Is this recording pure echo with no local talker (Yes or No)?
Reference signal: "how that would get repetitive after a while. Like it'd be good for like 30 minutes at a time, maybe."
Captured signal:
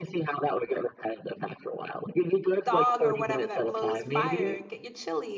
No